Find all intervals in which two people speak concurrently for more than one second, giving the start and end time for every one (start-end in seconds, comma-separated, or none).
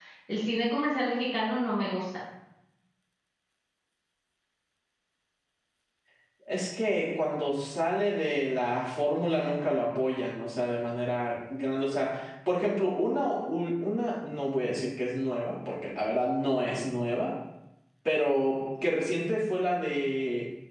none